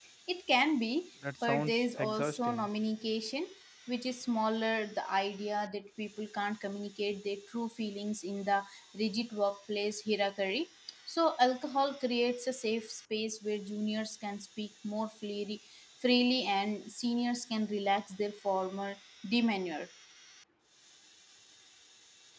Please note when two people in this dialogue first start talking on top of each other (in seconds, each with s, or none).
1.2 s